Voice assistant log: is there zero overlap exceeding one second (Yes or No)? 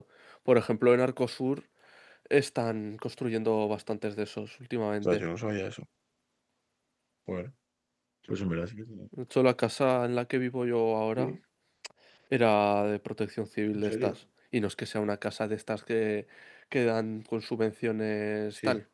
Yes